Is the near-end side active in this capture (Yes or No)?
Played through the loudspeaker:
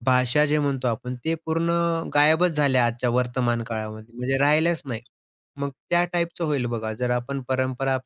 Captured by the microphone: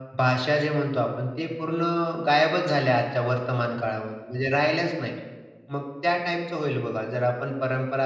No